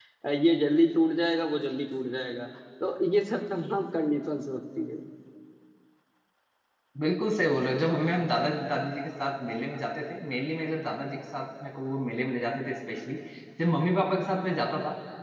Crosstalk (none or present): none